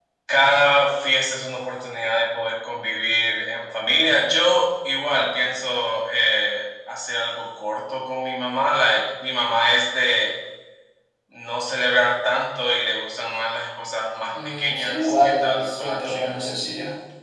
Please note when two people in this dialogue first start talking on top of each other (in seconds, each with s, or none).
14.3 s